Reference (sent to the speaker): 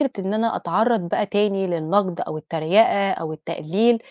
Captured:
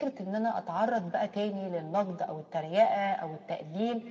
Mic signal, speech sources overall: echo only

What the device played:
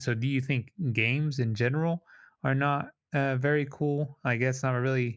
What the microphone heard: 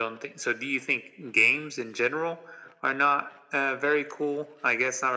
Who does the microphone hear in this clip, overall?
echo only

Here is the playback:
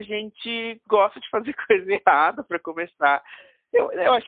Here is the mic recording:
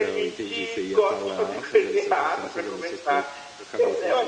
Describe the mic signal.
both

